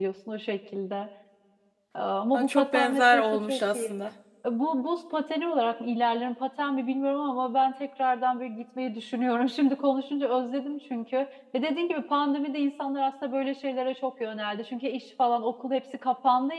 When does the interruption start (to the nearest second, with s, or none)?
2 s